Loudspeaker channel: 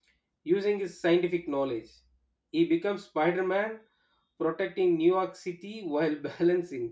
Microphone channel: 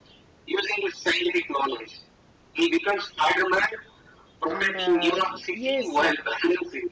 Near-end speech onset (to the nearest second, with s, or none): 4 s